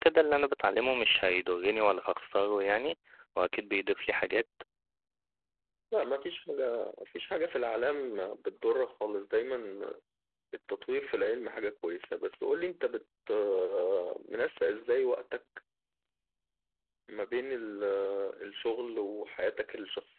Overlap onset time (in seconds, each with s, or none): none